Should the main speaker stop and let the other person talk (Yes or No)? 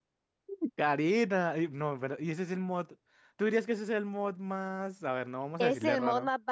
Yes